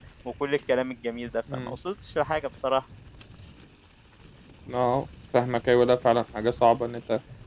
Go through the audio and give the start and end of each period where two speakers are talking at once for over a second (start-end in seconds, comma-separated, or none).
none